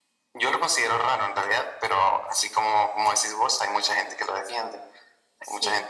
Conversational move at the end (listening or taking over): listening